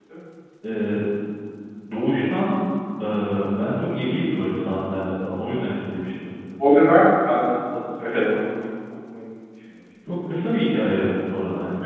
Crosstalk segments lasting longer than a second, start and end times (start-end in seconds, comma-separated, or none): none